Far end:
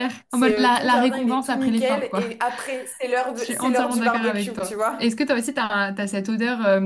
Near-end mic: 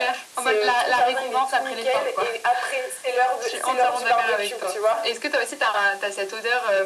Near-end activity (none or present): none